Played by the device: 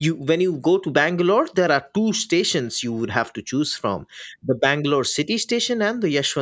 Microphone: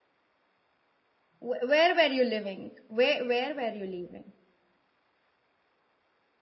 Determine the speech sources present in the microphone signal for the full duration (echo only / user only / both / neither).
user only